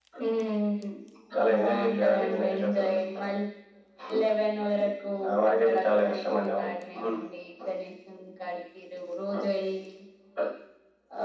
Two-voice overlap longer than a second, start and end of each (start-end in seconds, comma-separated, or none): 1.5-3.0, 5.5-7.2